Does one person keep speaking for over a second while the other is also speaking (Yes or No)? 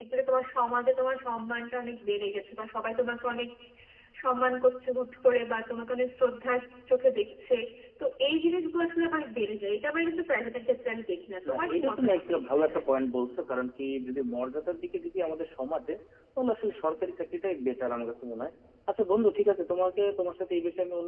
Yes